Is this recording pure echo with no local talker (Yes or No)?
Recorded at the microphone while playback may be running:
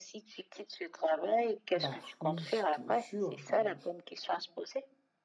No